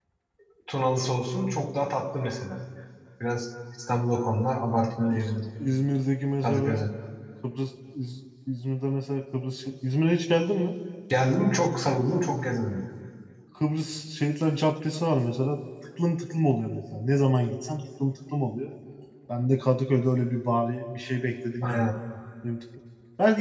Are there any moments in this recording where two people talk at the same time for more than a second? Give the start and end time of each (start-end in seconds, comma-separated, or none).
none